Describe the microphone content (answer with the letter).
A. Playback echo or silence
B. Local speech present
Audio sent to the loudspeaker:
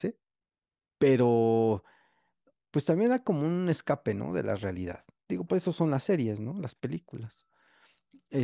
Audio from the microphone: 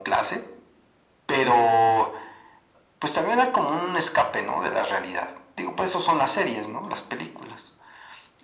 A